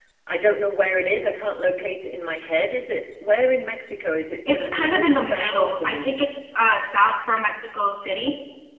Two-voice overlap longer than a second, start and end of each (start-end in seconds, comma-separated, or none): 4.5-6.1